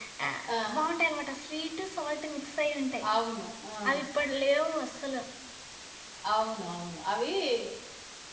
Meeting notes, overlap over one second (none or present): none